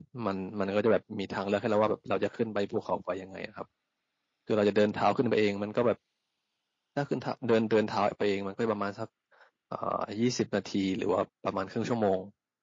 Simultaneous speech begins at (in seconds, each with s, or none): none